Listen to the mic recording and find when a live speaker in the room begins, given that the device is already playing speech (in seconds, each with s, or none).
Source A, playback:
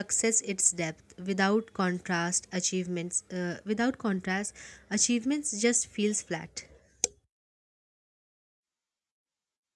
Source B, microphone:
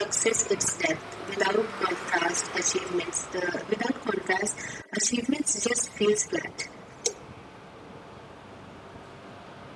none